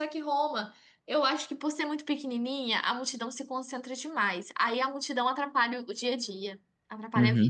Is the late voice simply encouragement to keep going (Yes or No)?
No